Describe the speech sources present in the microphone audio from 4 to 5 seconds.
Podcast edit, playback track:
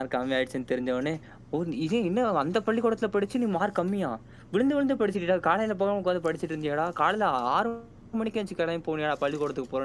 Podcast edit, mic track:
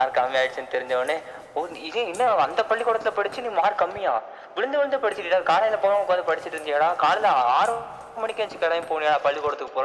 echo only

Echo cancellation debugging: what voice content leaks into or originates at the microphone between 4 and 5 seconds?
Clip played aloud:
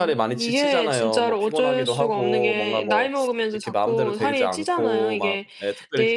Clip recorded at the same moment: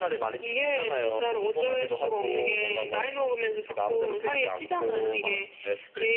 echo only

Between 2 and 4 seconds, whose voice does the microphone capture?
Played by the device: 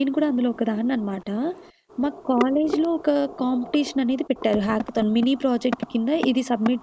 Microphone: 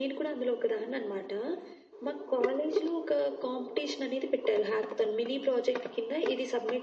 echo only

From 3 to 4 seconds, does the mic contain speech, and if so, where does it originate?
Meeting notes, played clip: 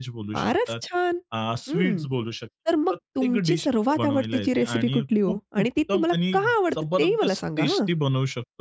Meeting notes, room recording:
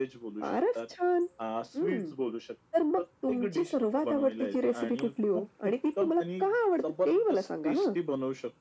echo only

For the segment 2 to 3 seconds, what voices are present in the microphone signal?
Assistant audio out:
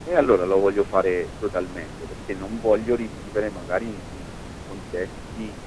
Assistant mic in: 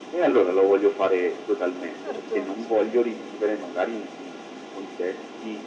both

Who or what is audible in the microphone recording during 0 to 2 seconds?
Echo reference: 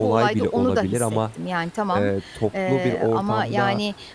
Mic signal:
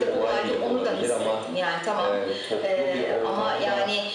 echo only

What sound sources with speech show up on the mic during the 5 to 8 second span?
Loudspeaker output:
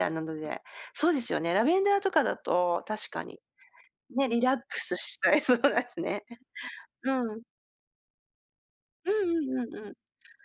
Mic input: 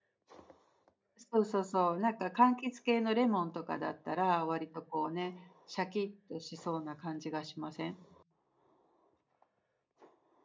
user only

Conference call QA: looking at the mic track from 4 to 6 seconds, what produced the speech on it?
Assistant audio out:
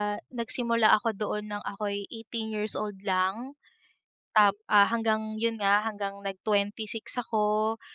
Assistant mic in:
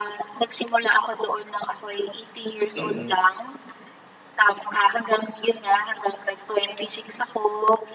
echo only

